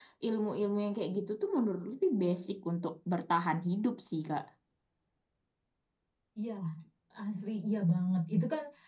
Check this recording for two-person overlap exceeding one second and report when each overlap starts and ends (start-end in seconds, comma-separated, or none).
none